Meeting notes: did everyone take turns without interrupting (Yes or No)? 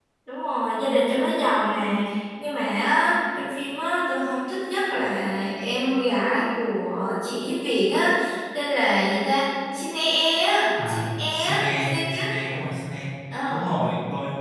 No